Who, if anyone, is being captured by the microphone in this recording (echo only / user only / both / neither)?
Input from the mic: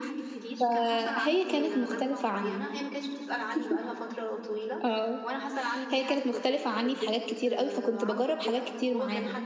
both